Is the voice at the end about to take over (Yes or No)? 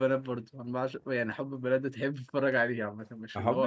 Yes